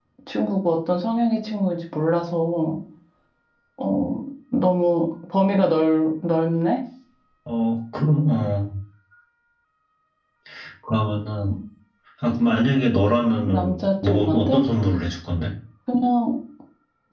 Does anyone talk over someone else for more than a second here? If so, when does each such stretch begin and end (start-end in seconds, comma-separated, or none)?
13.4-14.7